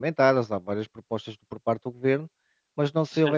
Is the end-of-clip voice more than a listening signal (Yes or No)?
No